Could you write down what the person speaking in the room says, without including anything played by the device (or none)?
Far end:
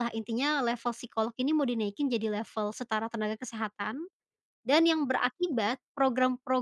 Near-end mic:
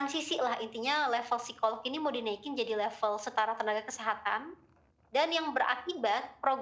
none